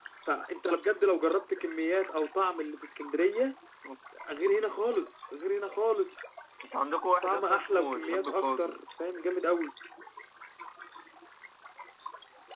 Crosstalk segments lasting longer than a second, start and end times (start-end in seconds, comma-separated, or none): 7.2-8.8